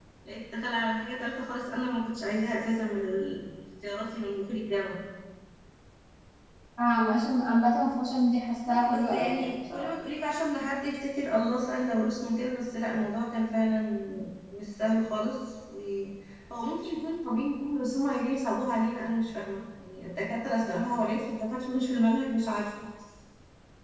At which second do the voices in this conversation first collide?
8.7 s

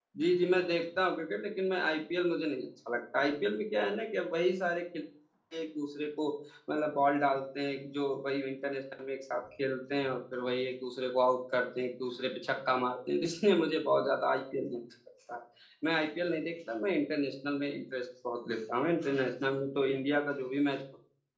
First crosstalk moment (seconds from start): none

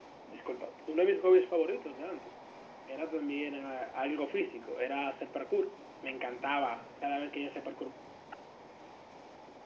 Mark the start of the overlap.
none

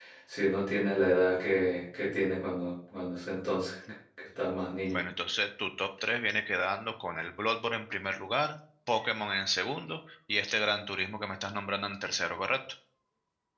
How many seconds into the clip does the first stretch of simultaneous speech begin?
none

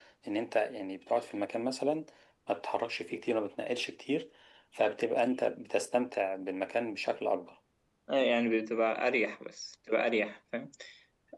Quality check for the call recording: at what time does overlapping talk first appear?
none

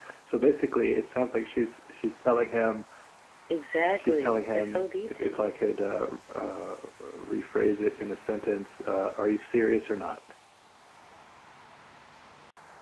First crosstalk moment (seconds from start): 4.0 s

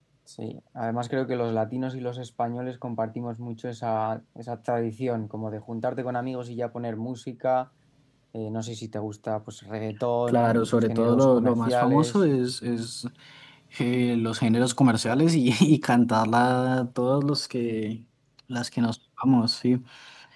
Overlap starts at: 10.3 s

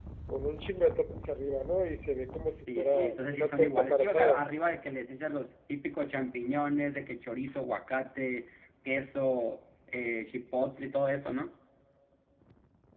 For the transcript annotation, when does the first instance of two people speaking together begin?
2.7 s

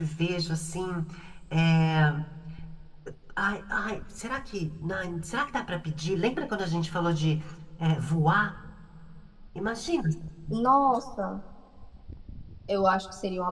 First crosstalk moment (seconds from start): none

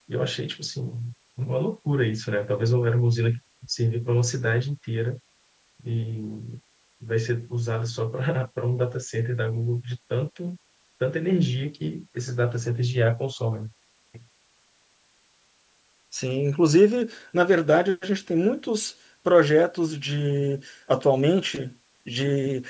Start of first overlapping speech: none

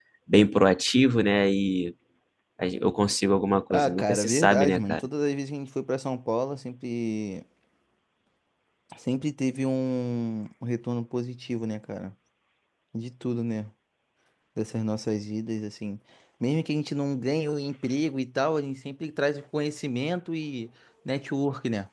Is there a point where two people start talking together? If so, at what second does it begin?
3.7 s

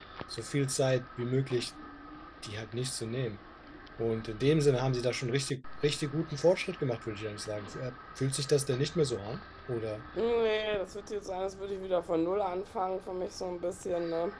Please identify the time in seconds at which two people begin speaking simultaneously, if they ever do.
none

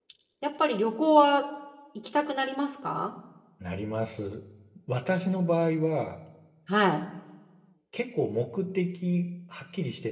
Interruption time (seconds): none

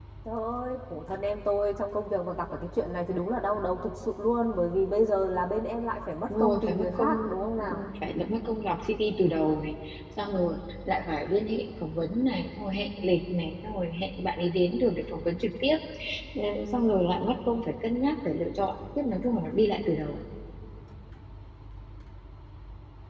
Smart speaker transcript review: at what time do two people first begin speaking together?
6.3 s

